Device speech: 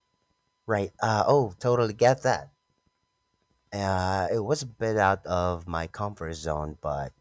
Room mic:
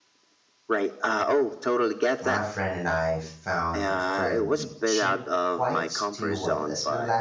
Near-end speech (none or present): present